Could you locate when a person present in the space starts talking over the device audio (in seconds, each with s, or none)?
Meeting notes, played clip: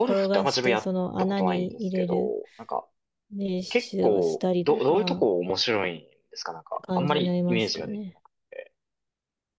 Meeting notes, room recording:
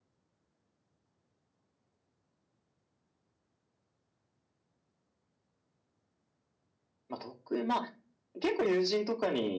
7.1 s